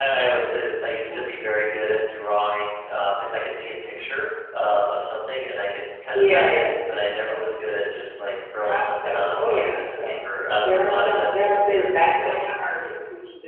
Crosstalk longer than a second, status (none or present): present